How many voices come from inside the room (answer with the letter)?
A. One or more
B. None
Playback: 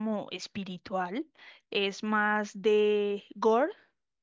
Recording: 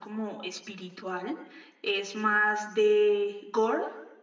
B